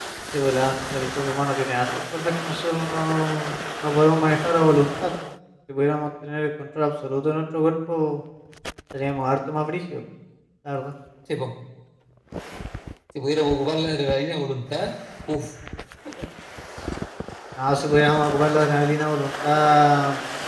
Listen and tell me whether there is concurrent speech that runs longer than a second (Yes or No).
No